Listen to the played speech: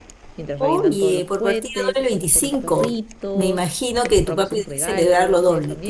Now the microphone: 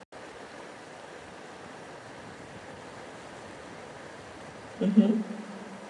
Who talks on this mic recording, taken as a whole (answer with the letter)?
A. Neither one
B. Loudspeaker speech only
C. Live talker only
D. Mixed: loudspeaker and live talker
C